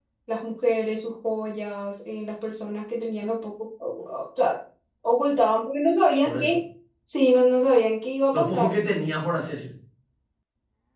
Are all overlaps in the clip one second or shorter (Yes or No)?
Yes